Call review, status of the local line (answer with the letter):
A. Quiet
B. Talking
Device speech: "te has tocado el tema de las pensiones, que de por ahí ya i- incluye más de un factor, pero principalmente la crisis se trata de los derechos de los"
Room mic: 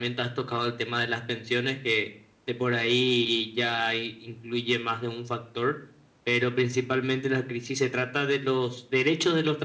A